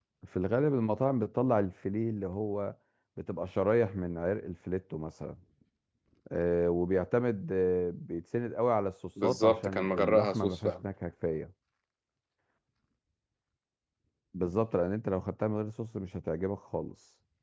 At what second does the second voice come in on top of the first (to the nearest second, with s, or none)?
9 s